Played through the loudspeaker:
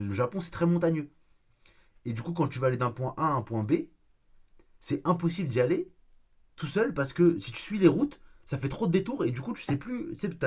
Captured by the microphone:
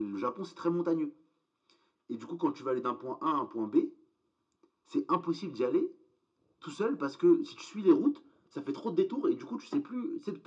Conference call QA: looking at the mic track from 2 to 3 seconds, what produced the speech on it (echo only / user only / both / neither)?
echo only